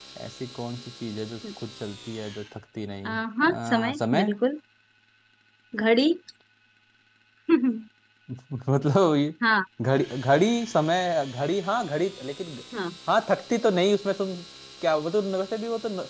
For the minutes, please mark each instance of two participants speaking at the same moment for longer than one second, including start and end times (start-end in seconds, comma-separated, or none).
3.0-4.3